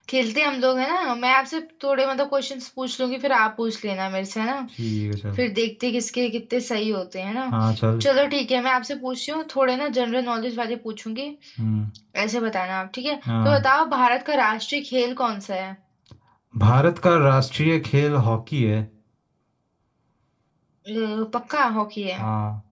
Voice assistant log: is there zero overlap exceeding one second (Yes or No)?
Yes